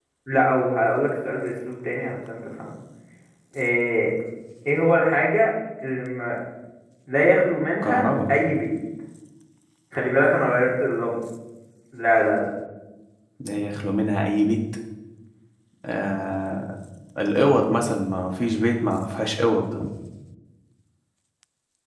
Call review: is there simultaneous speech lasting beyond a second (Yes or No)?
No